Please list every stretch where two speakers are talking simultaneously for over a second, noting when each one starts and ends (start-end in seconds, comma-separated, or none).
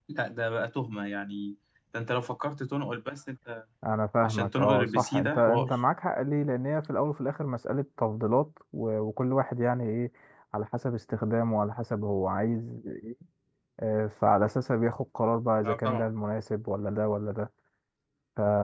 4.2-5.7